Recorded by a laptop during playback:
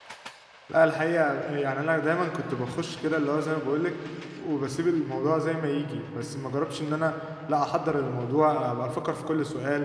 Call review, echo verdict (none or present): none